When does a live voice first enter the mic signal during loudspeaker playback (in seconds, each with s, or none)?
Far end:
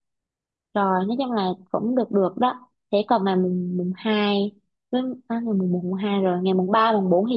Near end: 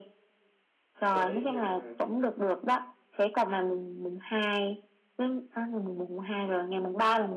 1.1 s